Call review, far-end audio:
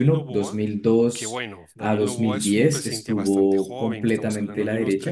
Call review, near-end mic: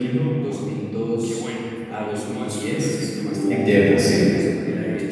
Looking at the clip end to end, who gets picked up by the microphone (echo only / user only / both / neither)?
both